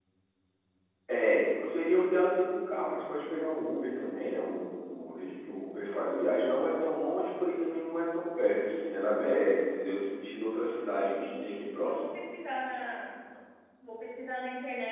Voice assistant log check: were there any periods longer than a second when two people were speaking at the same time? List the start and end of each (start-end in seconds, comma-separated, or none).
10.8-12.1